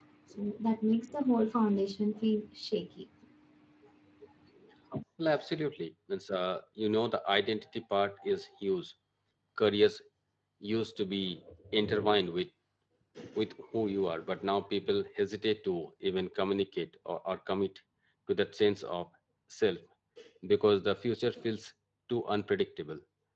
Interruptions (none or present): none